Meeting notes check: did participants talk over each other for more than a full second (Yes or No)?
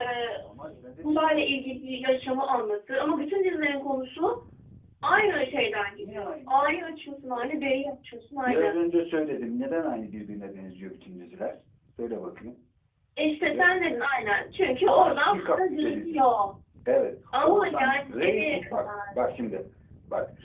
Yes